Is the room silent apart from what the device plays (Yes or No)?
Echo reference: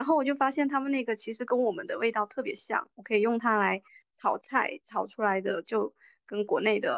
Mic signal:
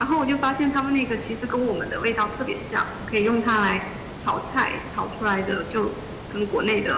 Yes